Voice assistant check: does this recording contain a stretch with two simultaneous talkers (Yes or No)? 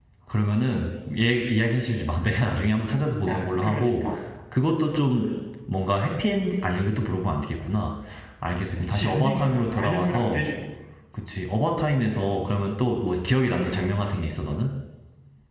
Yes